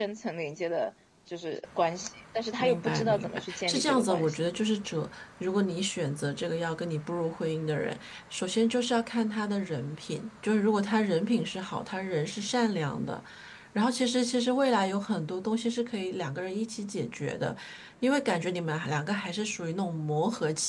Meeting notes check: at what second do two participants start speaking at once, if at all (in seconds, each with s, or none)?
2.6 s